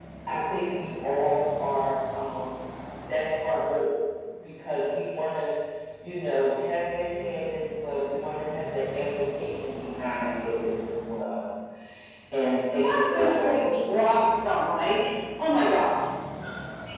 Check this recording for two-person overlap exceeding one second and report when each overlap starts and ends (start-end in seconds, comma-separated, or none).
12.9-14.2